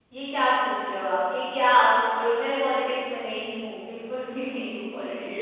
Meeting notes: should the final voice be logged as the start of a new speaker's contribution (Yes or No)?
Yes